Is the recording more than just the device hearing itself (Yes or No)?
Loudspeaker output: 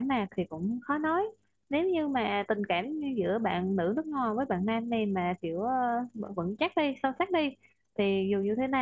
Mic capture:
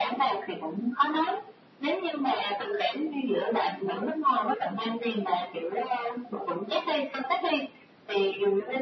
No